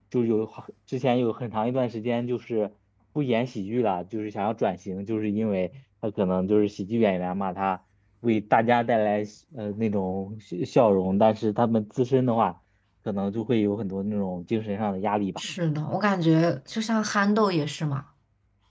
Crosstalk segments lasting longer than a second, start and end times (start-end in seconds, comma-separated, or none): none